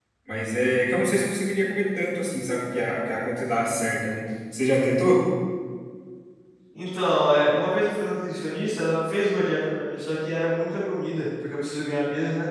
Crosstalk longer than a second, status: none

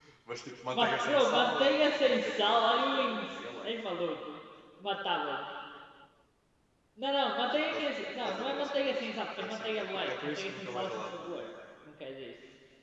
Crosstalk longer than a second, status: present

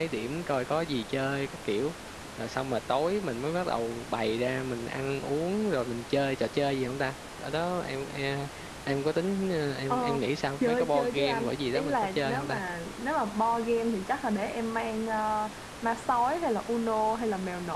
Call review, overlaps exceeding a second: present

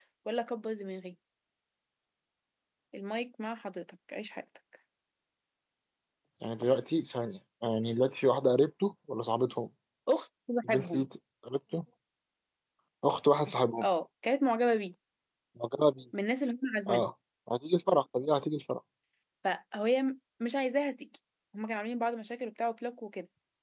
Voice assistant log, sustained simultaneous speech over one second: none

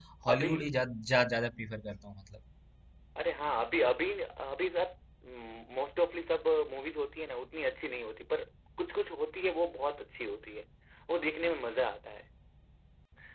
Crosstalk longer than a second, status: none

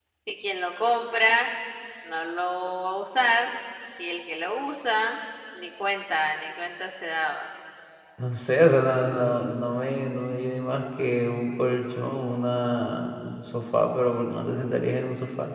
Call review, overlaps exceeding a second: none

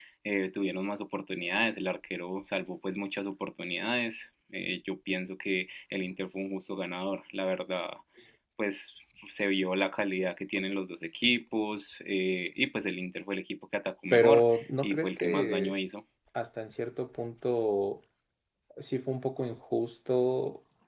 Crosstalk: present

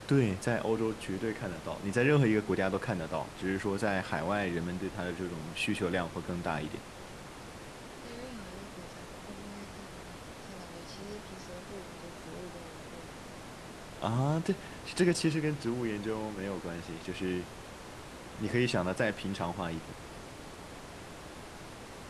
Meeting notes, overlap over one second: none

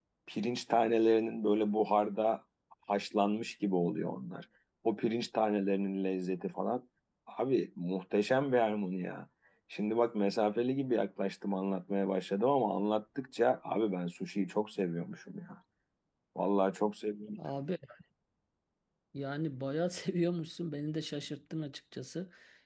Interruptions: none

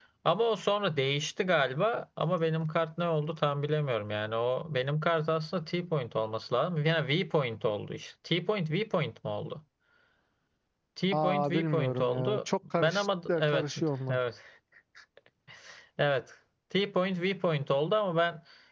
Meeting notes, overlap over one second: present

